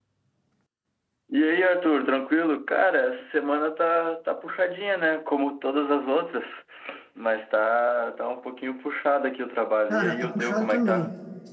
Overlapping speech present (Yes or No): Yes